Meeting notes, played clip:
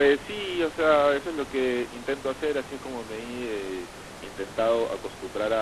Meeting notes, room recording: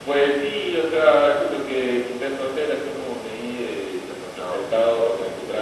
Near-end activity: present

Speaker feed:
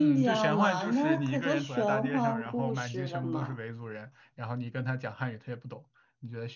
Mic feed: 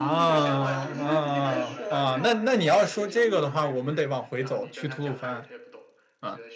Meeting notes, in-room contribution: present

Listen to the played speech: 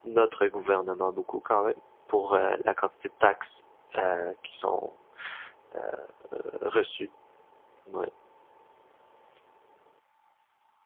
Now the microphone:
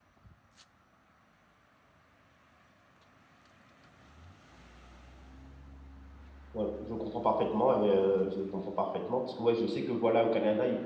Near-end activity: present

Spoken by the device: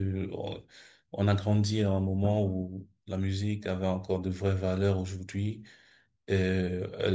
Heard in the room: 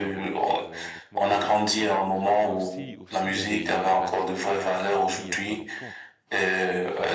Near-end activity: present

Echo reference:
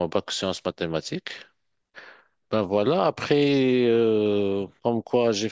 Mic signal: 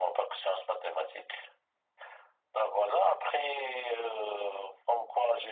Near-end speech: none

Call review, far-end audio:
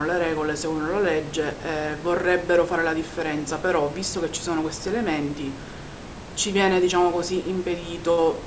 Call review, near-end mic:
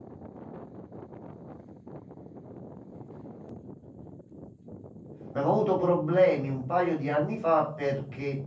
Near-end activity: present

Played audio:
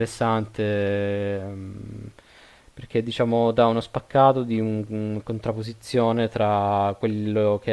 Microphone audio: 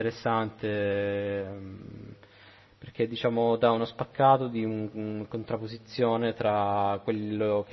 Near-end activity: none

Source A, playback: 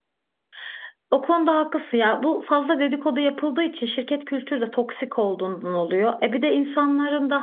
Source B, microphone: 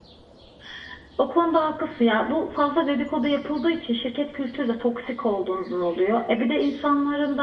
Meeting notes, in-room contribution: none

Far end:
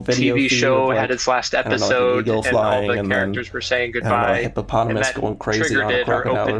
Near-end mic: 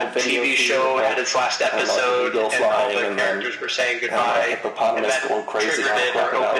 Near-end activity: none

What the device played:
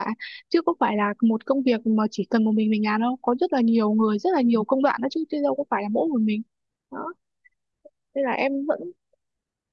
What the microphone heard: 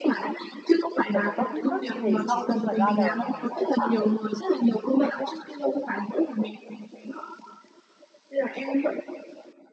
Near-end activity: present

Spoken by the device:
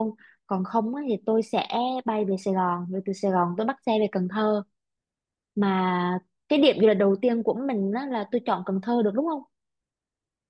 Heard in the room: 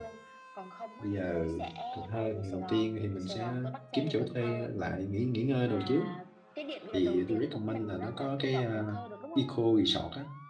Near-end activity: present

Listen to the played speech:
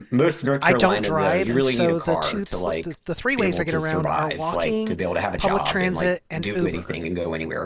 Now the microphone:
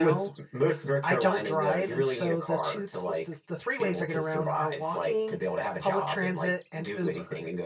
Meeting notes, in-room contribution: none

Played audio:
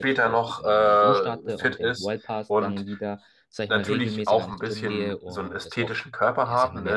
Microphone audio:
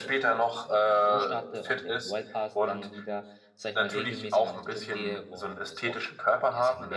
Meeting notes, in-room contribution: none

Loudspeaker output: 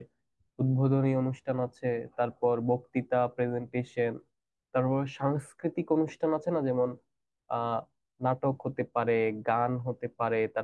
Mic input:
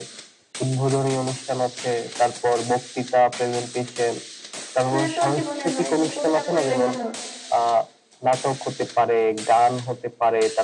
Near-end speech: present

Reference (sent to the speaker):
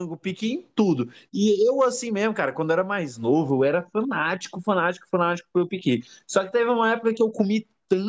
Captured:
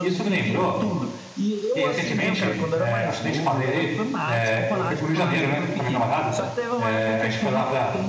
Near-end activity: present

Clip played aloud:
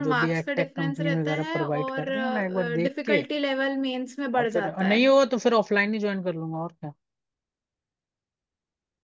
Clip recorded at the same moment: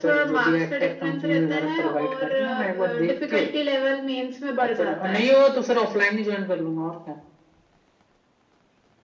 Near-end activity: none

